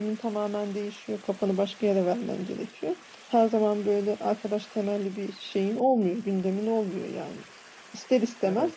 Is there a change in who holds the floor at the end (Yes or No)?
No